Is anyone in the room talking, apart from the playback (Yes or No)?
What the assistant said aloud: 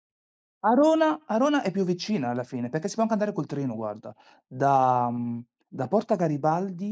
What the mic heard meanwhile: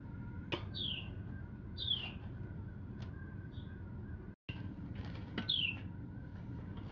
No